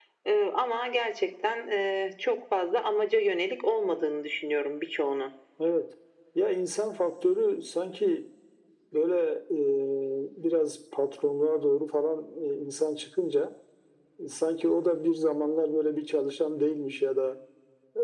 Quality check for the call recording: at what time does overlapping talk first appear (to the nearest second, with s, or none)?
none